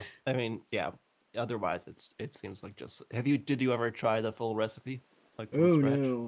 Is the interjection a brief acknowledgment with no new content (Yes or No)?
No